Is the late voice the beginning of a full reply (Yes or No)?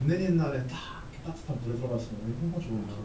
Yes